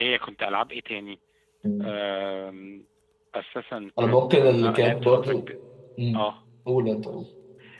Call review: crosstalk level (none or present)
present